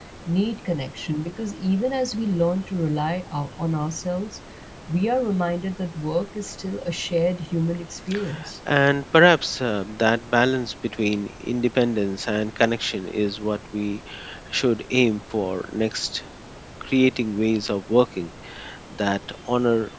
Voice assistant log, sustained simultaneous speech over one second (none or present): none